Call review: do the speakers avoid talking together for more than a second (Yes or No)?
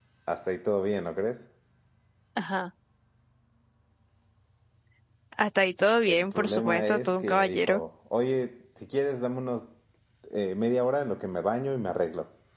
No